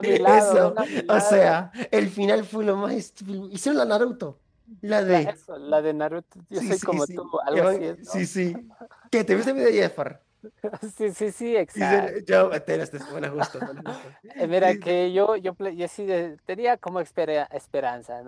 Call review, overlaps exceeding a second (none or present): present